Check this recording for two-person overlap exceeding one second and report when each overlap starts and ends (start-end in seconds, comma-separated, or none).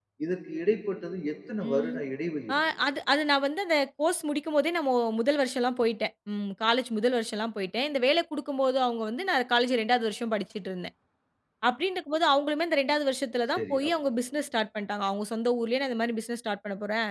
none